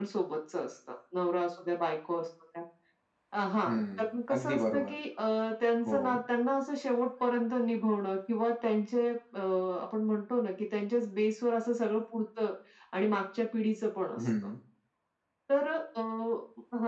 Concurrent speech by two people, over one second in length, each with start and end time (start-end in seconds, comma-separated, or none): 3.6-4.9